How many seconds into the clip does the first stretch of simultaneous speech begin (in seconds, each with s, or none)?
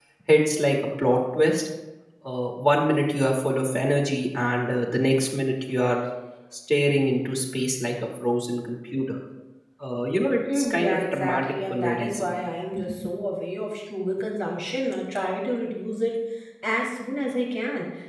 10.6 s